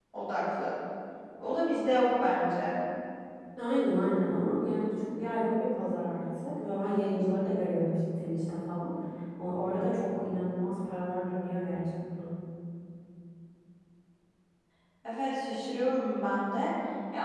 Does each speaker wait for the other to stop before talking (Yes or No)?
Yes